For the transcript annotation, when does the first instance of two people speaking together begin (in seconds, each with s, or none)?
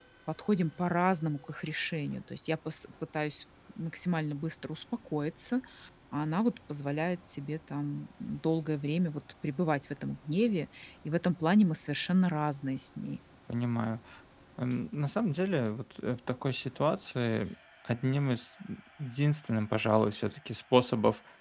none